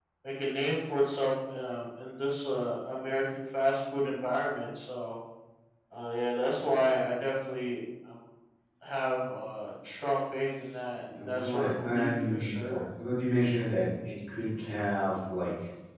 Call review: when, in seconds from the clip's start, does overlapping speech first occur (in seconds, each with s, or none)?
11.1 s